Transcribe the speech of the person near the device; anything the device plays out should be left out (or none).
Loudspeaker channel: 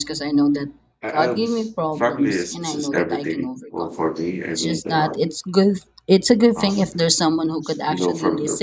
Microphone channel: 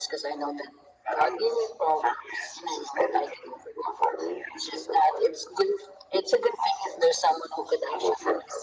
none